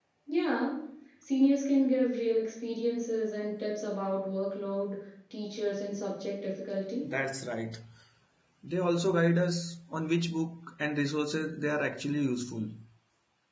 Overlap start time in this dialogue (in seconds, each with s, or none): none